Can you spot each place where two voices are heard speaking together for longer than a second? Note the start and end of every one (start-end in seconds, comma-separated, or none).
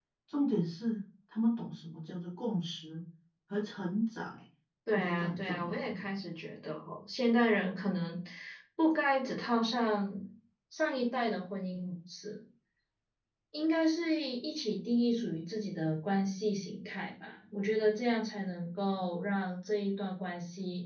4.9-6.1